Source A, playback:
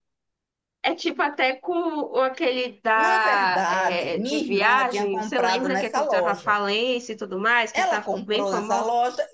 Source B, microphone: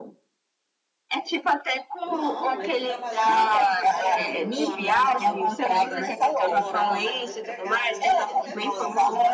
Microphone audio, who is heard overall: both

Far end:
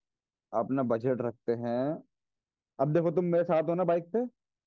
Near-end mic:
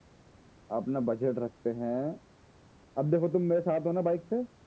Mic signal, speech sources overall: echo only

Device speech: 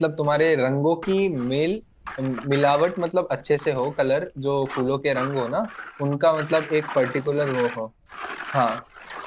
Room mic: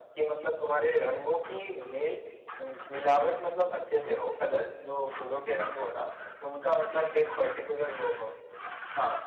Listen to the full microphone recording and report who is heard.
echo only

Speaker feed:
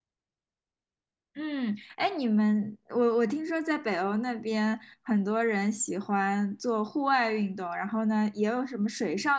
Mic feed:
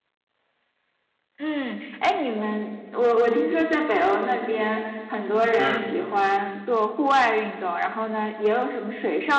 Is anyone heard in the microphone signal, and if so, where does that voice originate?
both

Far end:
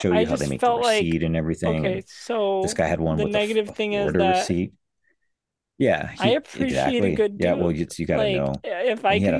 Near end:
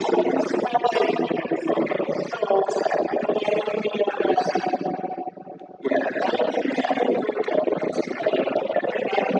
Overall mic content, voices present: echo only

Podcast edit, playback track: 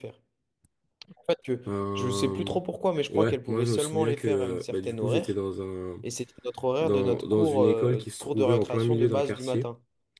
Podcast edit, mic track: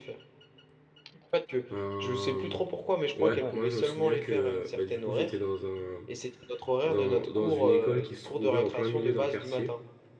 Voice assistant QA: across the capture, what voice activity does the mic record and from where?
both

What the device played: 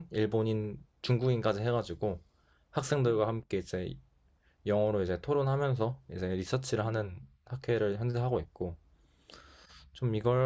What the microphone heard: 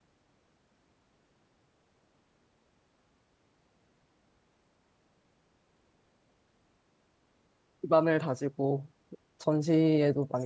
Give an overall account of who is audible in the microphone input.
user only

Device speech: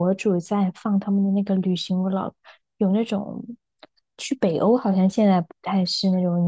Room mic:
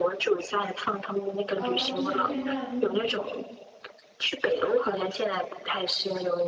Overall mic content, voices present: both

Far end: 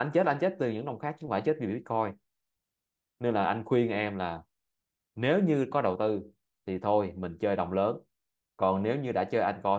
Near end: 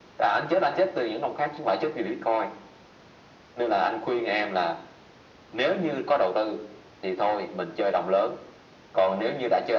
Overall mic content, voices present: echo only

